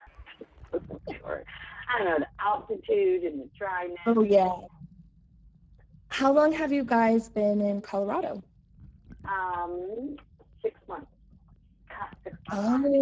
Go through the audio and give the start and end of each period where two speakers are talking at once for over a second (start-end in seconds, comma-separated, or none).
none